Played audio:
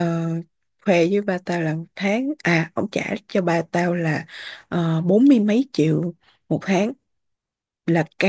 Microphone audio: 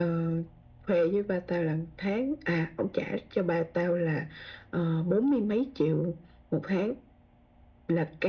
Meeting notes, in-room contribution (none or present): none